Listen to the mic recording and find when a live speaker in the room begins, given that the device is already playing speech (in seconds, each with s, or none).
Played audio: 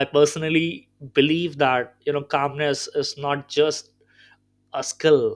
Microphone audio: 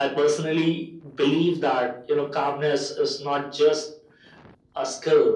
none